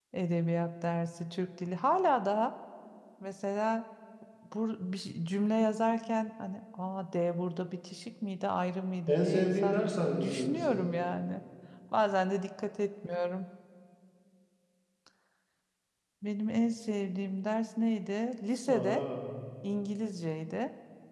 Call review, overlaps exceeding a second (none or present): present